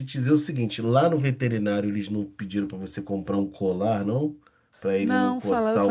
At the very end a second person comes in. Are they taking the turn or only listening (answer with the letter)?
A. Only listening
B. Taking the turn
B